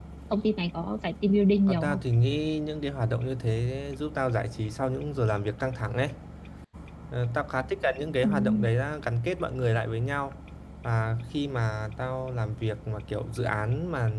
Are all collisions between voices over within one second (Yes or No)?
Yes